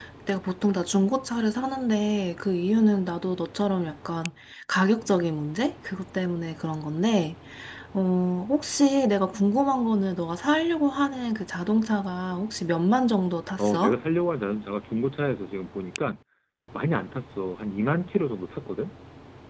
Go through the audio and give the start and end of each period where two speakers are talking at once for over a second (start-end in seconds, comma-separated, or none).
none